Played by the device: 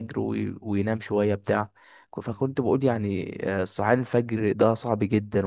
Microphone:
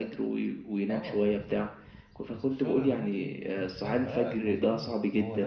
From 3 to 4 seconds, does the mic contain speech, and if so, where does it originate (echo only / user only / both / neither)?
both